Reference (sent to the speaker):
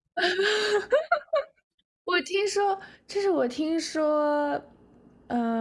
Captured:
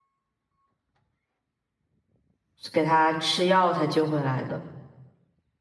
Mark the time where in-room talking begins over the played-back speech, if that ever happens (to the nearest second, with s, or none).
3 s